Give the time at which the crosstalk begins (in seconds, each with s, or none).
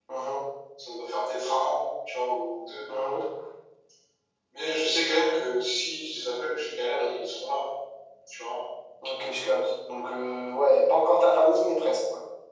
none